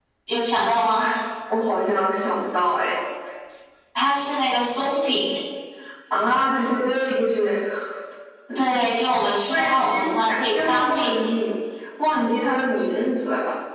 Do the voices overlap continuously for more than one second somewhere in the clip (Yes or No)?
Yes